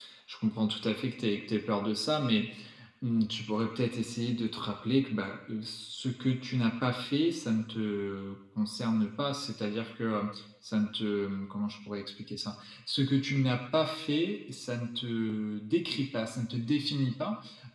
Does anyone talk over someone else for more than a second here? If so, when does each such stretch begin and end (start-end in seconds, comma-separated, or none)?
none